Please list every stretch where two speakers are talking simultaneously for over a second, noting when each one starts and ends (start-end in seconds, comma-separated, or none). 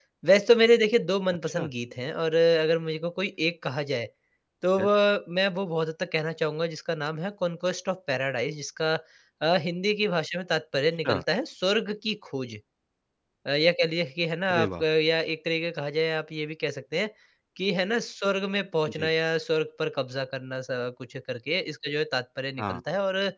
none